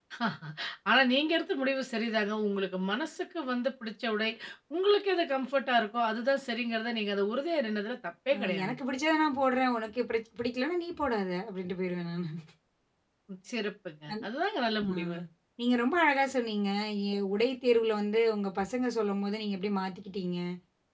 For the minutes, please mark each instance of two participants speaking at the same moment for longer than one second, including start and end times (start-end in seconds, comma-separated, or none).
none